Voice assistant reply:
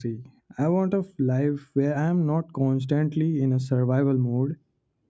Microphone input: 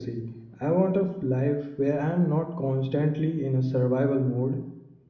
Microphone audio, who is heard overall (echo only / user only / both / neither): echo only